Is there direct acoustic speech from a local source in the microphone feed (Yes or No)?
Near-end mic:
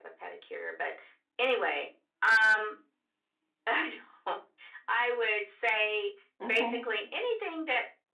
Yes